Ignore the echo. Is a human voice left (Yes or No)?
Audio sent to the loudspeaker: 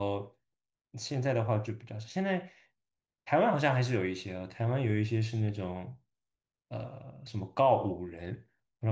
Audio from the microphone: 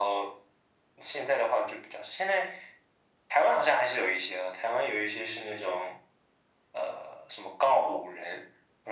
No